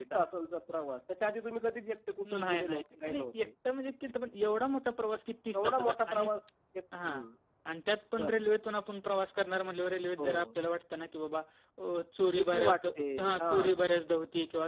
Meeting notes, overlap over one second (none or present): present